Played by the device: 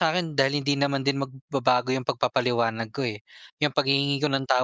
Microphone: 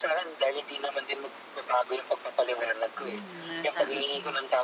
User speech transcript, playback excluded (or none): Hmm nasa mm.